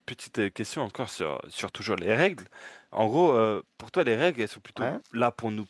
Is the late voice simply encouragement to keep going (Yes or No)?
Yes